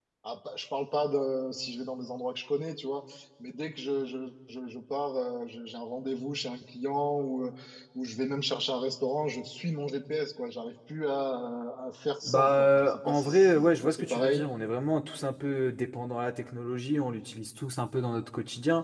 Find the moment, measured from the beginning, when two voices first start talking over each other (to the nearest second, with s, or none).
12 s